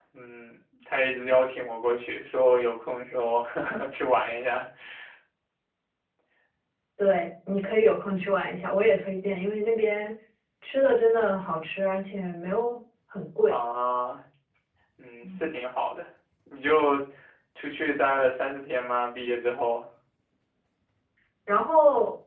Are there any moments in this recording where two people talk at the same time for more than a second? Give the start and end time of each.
none

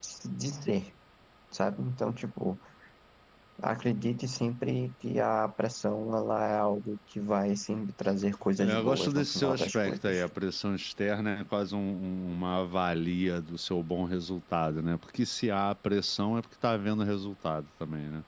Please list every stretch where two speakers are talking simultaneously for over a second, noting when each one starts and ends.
8.6-10.1

